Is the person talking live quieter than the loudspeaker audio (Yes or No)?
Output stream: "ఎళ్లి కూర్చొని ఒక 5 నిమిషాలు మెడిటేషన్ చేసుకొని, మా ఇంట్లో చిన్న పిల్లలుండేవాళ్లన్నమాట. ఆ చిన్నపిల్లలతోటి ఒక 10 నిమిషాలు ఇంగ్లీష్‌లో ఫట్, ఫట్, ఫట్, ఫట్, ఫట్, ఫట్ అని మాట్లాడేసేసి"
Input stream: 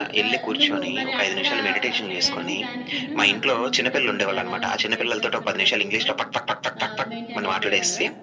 Yes